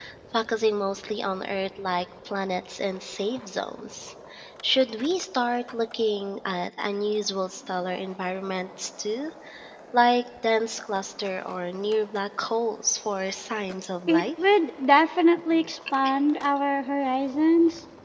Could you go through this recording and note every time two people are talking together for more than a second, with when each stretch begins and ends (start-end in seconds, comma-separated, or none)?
none